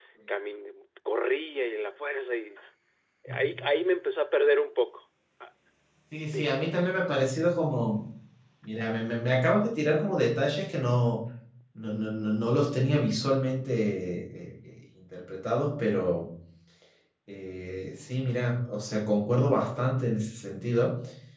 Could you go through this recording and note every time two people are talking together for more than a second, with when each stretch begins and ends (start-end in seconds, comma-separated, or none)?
none